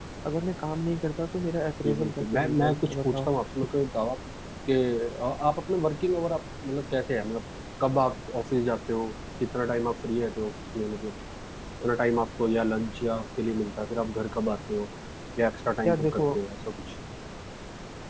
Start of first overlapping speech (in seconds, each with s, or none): 1.8 s